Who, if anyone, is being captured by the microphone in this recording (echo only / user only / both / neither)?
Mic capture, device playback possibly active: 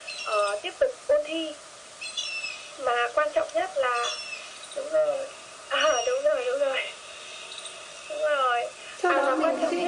both